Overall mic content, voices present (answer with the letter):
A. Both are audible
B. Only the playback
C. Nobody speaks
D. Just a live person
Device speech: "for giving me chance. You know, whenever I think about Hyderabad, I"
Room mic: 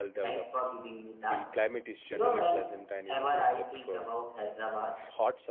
A